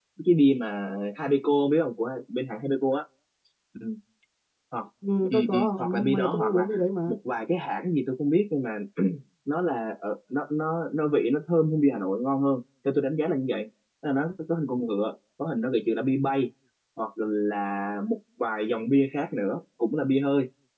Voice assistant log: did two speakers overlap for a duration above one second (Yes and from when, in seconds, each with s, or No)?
Yes, from 5.3 s